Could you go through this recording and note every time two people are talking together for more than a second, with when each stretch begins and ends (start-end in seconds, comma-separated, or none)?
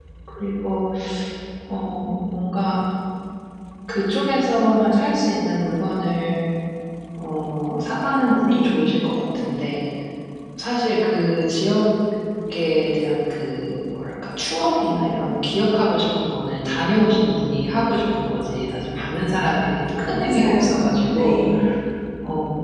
20.1-21.4